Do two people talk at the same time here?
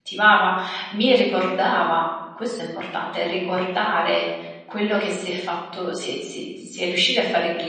No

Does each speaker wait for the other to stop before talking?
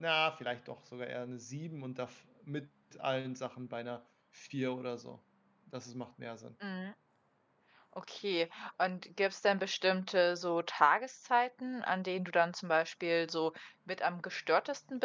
Yes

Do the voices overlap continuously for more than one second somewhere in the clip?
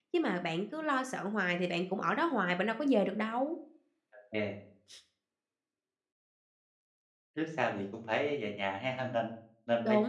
No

